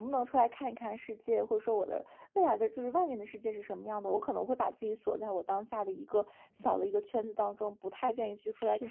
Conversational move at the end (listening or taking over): listening